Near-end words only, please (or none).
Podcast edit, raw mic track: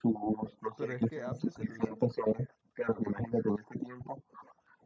Pero es que app de celular.